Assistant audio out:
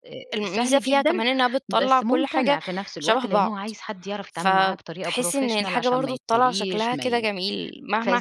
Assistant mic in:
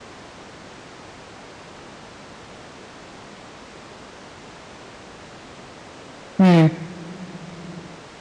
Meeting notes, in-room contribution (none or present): present